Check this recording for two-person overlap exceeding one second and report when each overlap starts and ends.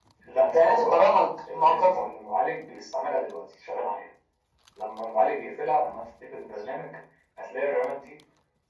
none

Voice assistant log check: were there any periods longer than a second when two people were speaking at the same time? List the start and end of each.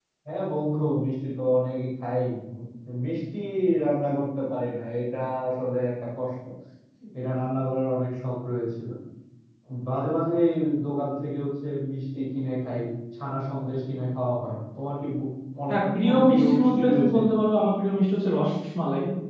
15.7-17.2

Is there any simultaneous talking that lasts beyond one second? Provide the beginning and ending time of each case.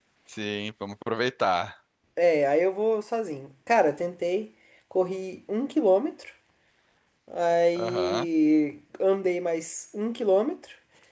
none

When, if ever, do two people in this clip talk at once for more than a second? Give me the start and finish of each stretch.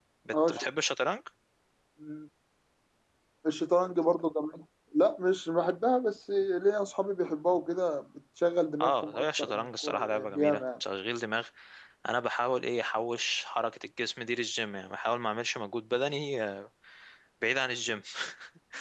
8.8-10.6

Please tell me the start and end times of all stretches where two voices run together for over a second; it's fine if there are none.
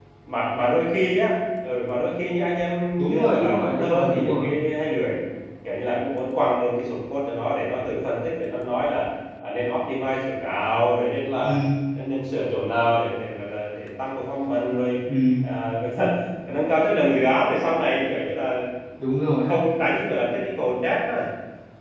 3.0-4.5

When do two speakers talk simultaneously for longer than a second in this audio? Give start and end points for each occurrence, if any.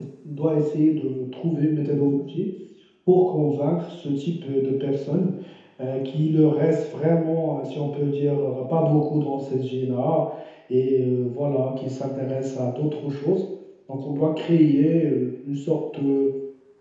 none

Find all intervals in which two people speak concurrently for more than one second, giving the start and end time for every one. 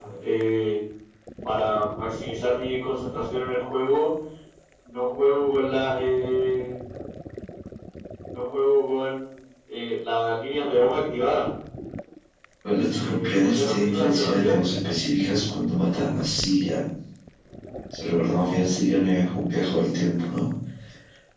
13.0-14.6

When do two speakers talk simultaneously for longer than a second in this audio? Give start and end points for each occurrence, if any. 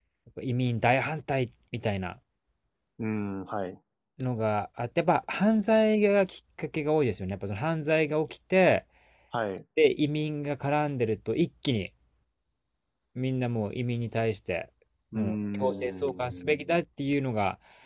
15.1-16.5

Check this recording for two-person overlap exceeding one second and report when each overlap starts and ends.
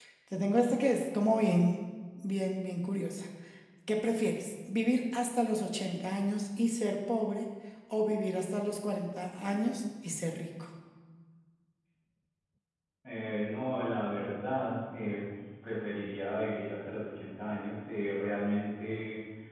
none

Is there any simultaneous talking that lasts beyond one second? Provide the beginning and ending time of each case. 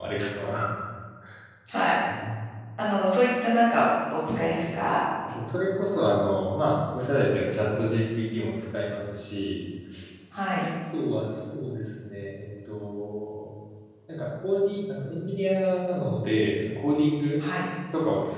none

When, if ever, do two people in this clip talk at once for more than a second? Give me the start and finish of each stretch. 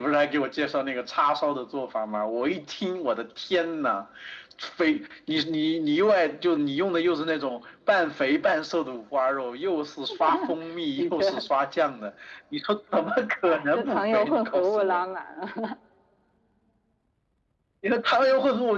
13.4-15.0

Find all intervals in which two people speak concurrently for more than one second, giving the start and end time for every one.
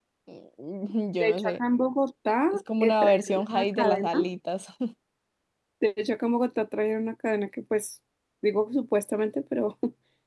2.5-4.3

